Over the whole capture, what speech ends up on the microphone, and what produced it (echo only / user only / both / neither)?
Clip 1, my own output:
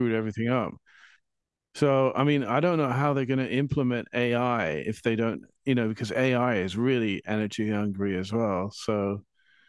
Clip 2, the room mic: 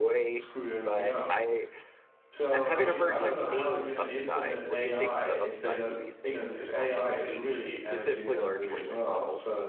both